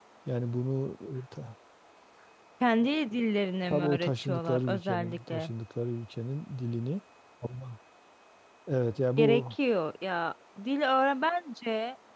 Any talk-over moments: Yes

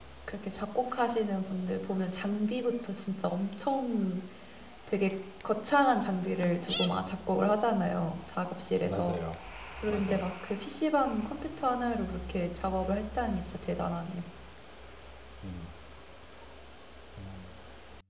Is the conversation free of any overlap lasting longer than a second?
Yes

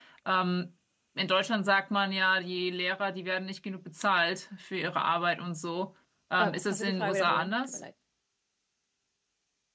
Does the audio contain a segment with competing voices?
Yes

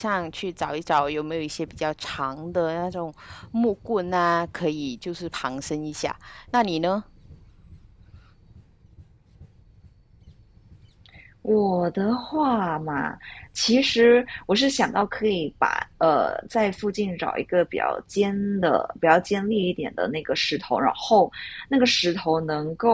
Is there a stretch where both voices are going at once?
No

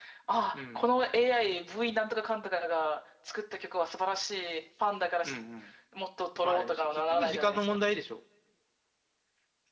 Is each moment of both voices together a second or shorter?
No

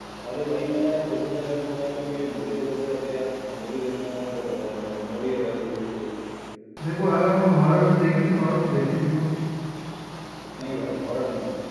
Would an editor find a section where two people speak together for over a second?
No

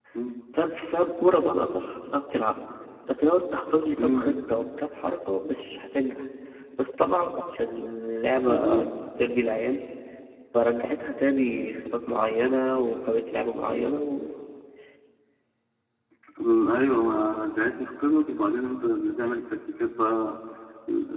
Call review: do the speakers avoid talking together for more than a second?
Yes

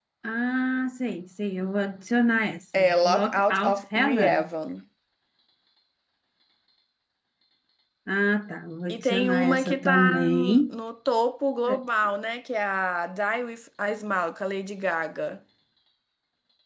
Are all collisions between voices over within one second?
No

